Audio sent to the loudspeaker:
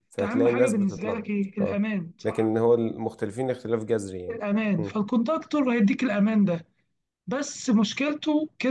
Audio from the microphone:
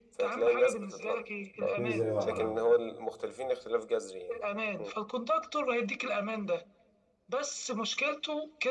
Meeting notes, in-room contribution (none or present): present